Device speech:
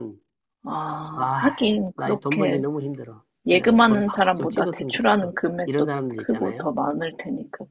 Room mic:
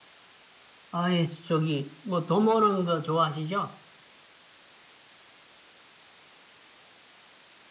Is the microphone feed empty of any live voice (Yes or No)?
No